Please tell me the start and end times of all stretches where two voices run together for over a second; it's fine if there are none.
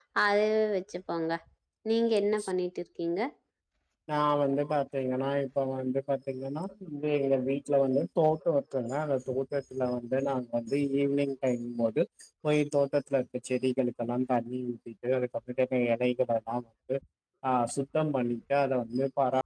none

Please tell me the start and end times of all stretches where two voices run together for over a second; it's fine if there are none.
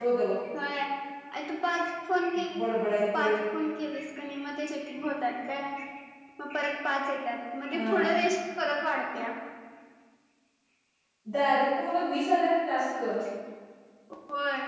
none

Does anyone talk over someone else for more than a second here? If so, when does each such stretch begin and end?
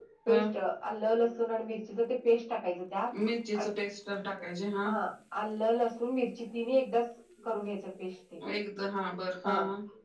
none

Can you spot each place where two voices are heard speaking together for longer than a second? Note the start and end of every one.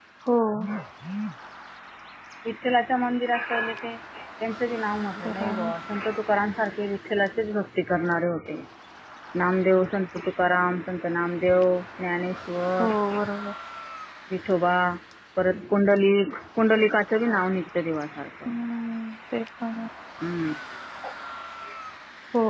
none

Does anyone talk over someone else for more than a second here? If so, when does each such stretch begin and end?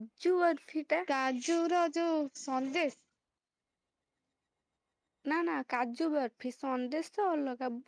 none

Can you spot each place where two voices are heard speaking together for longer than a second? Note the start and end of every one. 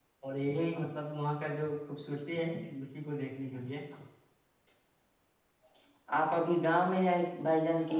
none

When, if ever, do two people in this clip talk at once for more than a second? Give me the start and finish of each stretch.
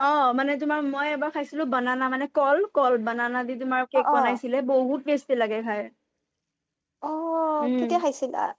none

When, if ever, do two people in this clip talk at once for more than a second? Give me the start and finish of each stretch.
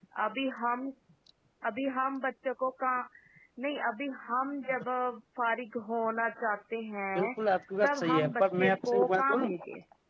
7.8-9.5

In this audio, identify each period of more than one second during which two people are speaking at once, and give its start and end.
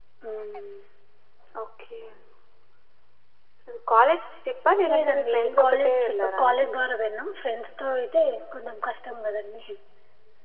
4.9-6.6

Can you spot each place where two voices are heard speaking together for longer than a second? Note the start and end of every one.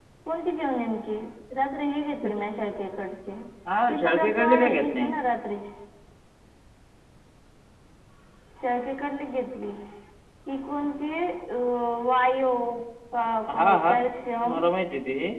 3.9-5.1

